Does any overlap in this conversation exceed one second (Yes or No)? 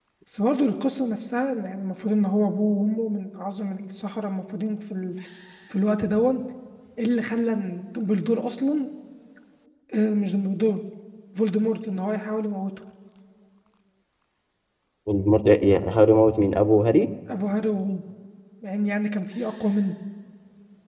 No